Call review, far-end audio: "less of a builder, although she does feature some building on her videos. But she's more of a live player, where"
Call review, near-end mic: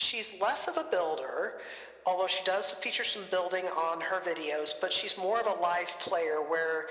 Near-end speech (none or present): none